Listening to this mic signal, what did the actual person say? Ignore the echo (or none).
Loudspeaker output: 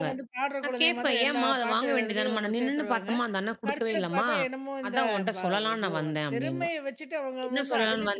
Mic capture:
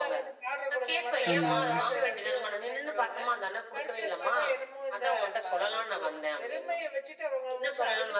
ஆமாங்க.